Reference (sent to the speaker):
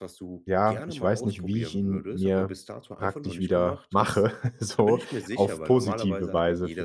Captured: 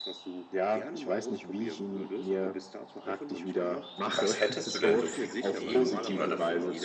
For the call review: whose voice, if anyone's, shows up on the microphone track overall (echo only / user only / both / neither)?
both